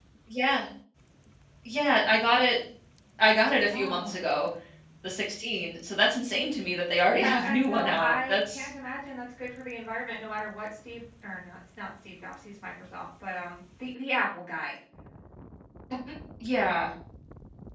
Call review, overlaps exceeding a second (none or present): present